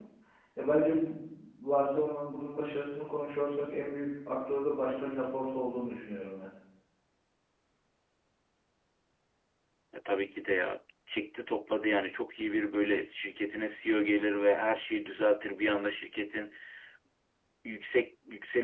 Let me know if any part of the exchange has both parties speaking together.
No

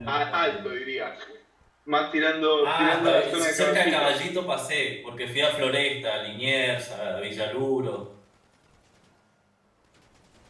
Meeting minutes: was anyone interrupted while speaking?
Yes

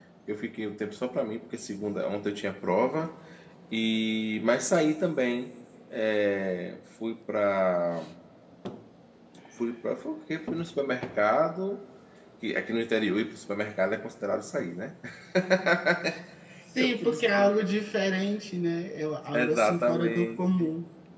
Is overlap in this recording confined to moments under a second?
No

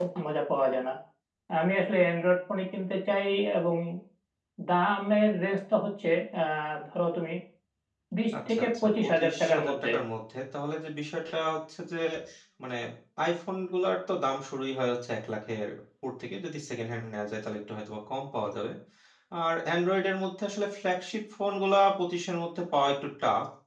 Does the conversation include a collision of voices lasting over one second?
Yes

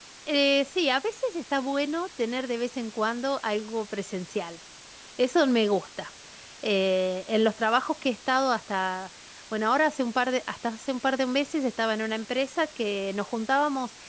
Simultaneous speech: No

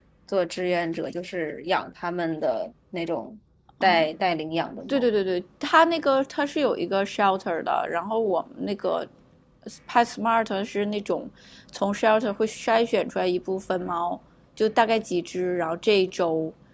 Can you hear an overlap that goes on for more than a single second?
No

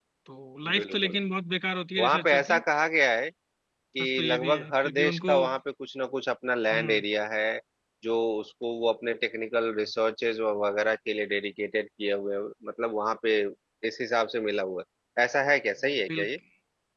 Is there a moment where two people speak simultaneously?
Yes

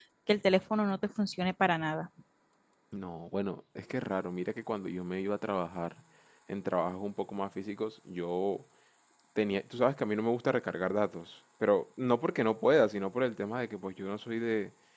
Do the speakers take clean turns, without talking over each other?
Yes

